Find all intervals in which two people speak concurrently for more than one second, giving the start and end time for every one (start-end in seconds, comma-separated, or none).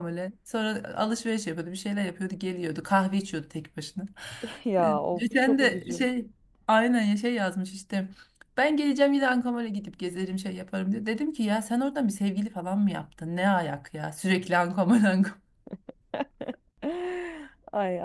4.8-6.0